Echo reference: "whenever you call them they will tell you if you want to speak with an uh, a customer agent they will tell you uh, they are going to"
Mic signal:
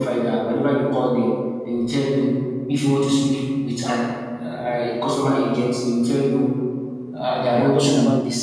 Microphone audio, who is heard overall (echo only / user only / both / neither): both